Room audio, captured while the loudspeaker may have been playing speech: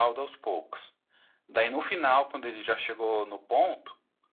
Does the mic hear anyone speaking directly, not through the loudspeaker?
No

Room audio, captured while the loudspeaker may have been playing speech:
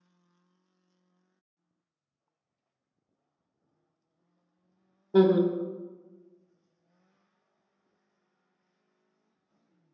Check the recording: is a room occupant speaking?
Yes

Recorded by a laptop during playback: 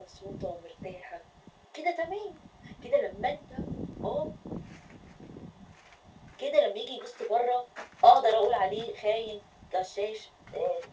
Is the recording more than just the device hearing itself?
No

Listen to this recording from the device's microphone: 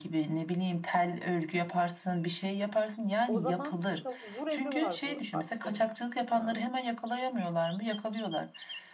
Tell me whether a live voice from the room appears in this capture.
Yes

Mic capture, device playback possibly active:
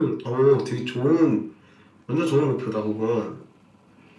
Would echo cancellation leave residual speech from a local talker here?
No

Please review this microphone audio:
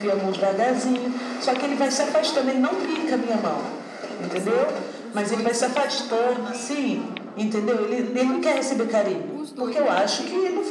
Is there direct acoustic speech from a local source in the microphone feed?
Yes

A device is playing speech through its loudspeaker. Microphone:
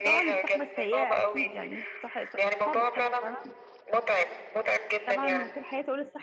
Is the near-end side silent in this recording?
No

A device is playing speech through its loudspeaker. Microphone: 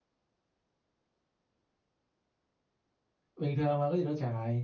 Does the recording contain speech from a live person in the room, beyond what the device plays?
Yes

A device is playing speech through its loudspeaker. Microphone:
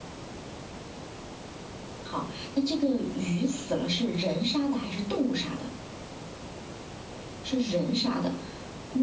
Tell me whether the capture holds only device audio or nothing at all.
Yes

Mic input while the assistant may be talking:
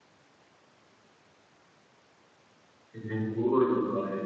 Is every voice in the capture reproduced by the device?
No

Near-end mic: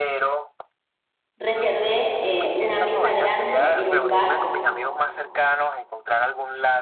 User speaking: Yes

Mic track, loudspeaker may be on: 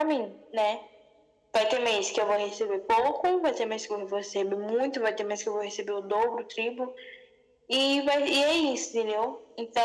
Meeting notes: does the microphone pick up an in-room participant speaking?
No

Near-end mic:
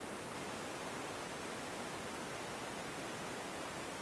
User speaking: No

